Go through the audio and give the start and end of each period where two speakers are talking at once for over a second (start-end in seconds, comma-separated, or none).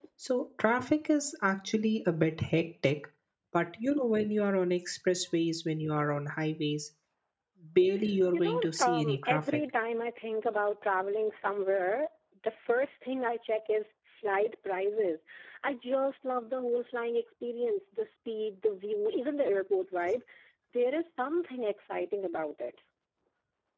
8.3-9.6